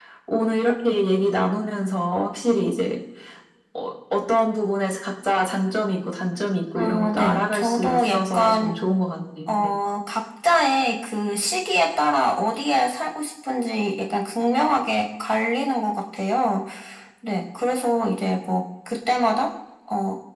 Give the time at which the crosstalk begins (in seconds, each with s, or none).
6.8 s